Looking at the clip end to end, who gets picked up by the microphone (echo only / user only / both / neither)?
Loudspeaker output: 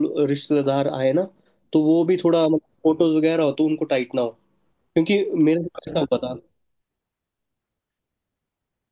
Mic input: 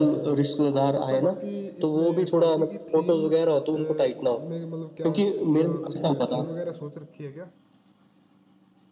both